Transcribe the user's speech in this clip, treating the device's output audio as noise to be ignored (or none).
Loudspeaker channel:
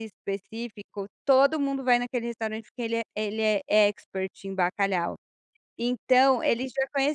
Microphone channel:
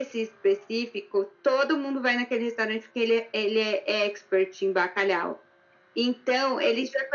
none